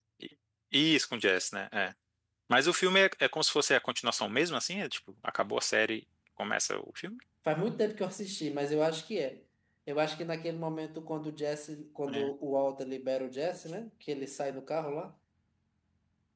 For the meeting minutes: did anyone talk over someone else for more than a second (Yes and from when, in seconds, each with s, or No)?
No